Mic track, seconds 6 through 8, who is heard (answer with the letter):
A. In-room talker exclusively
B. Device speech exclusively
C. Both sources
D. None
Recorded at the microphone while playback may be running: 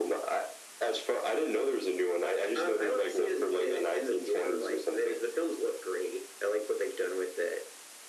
B